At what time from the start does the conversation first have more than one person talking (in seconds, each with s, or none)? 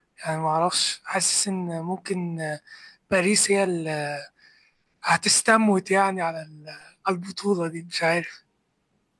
none